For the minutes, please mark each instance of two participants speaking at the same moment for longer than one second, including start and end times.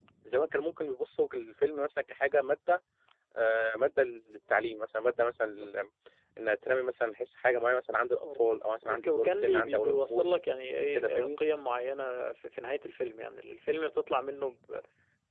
8.8-10.3

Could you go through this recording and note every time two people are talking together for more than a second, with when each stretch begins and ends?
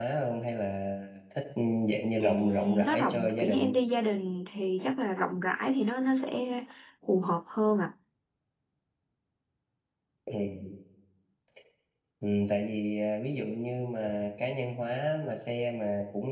2.2-3.7

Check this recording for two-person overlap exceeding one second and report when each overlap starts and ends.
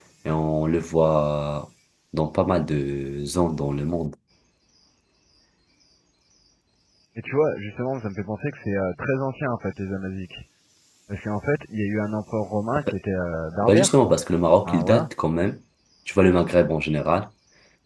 none

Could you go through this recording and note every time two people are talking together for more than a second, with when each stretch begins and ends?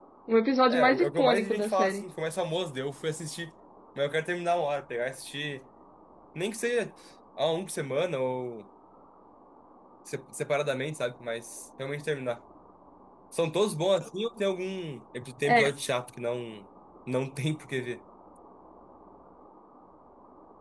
0.7-2.1

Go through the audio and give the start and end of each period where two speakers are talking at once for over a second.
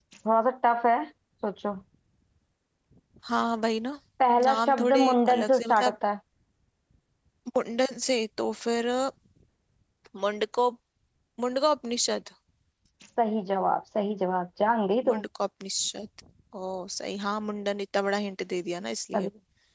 4.4-6.0

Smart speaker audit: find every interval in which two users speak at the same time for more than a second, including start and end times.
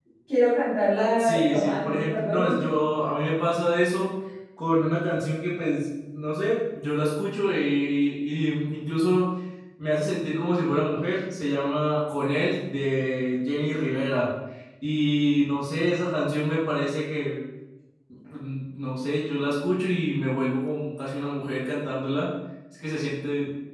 1.2-2.6

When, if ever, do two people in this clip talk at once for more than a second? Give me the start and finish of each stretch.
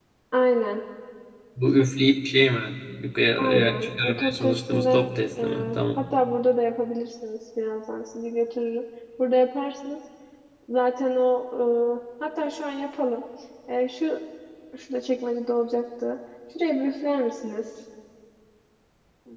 3.4-6.0

